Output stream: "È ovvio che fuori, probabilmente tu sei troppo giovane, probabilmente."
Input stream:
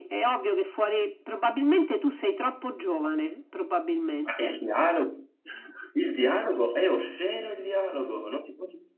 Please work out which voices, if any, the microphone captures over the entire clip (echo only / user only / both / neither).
both